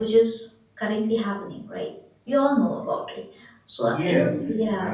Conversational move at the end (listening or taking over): taking over